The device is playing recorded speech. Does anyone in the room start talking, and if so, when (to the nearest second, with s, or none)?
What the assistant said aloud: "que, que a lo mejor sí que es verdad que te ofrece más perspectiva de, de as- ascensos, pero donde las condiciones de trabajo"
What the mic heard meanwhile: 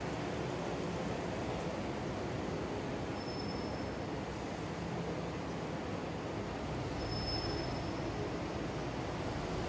none